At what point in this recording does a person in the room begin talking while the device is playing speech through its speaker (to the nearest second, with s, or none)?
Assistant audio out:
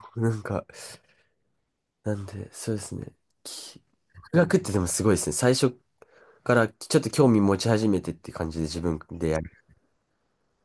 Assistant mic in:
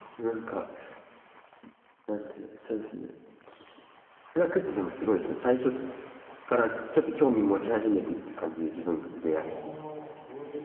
9 s